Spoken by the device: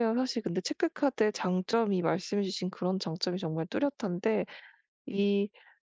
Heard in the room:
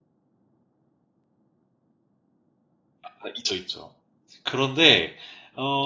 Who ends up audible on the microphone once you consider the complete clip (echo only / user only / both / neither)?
user only